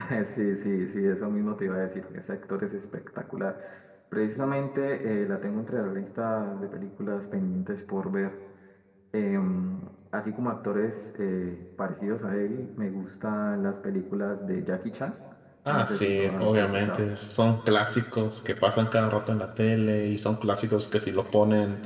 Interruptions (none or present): present